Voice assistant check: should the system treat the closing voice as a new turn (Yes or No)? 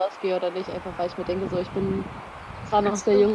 No